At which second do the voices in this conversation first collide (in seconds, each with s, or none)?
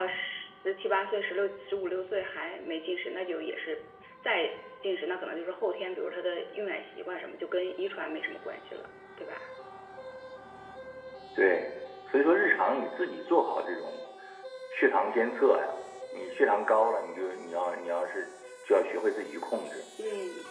none